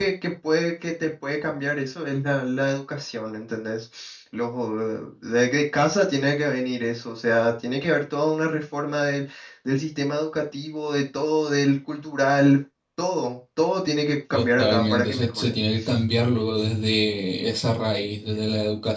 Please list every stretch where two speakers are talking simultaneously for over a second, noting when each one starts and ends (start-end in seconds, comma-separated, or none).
14.3-15.6